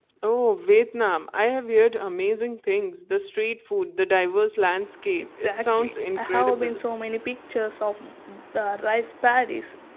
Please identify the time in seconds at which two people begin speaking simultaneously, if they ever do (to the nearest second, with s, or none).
5 s